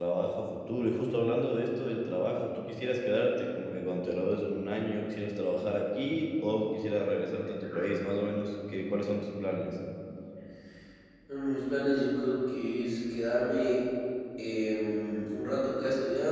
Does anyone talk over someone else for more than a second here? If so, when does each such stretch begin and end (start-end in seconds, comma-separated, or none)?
none